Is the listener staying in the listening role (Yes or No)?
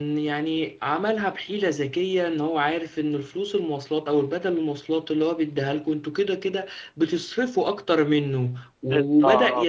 Yes